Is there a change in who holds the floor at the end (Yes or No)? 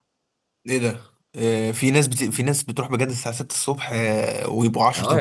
Yes